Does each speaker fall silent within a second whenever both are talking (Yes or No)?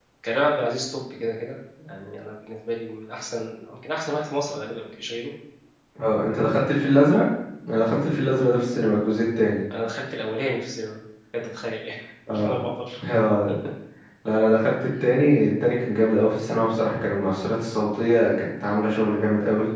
Yes